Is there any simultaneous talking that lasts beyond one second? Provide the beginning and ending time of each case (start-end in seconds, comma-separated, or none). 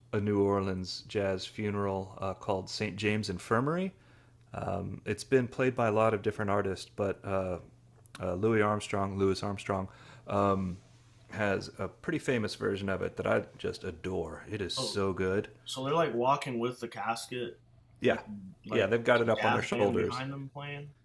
18.7-20.2